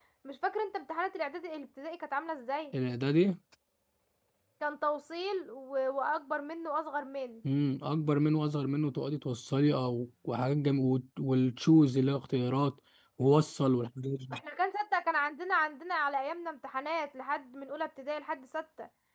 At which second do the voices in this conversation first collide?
none

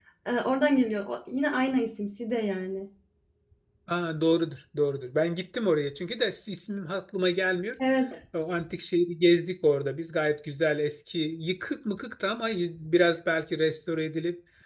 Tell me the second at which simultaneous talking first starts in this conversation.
none

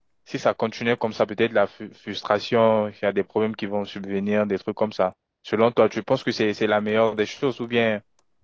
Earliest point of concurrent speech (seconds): none

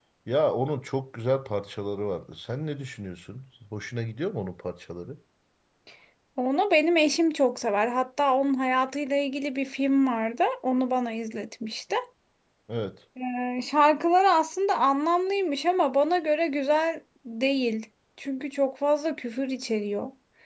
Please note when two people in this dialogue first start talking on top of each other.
none

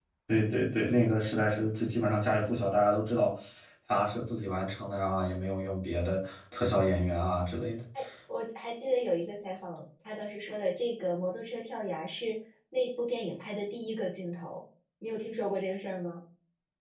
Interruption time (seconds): none

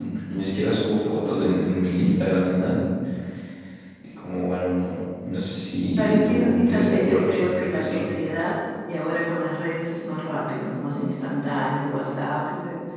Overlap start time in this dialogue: 6.0 s

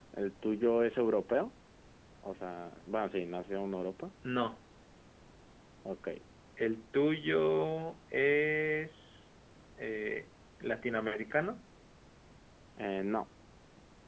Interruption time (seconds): none

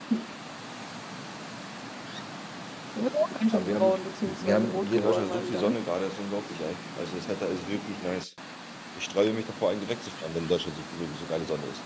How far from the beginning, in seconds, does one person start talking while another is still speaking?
3.5 s

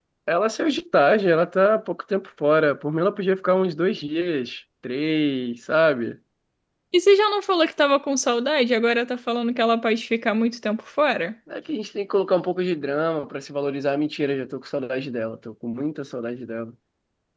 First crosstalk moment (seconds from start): none

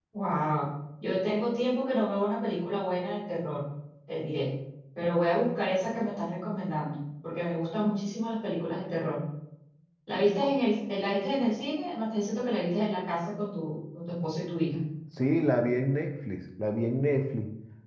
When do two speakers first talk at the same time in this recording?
none

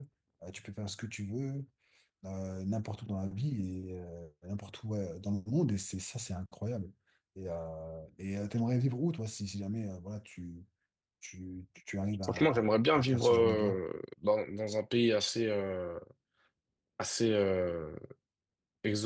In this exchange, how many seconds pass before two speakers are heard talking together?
12.2 s

